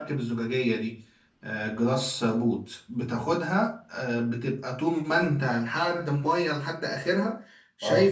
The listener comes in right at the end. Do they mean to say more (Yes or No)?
No